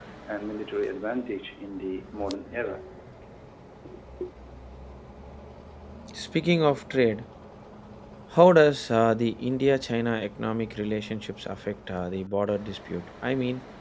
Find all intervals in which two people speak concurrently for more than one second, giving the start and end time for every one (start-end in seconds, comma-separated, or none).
none